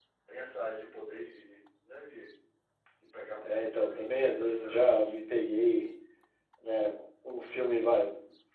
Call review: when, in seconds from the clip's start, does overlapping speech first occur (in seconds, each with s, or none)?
3.4 s